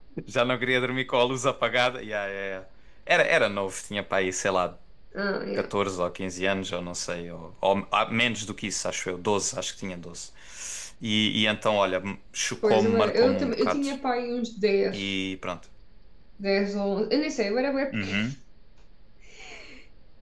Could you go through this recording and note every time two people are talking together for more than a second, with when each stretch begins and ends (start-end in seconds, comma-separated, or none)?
12.6-13.9